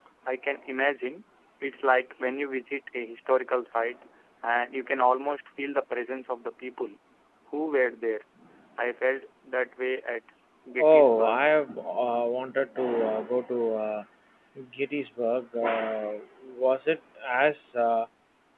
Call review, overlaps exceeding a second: none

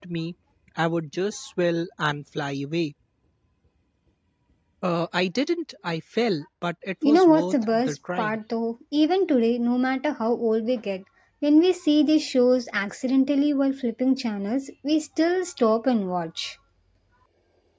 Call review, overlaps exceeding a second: present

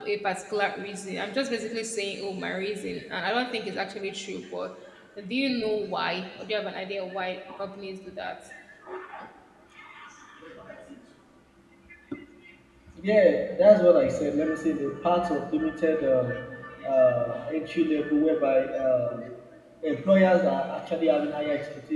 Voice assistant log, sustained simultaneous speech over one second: none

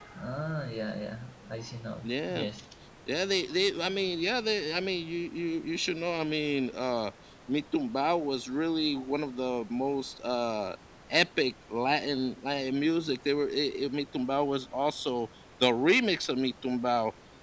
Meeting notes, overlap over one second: none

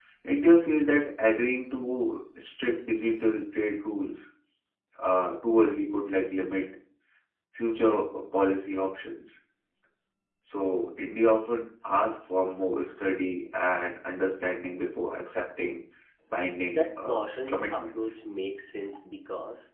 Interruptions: present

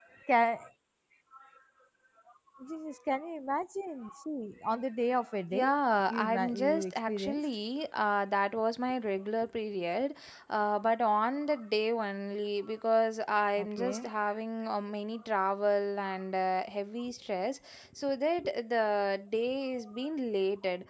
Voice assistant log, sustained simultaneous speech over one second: present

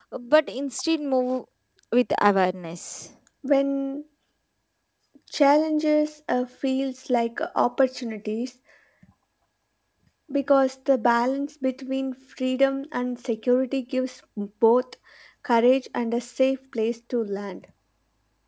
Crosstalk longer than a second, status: none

